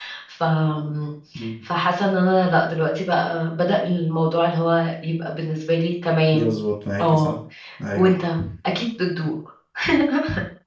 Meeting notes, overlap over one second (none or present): none